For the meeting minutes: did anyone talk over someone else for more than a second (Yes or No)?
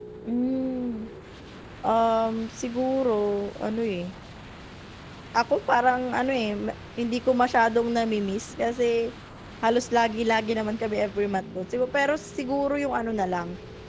No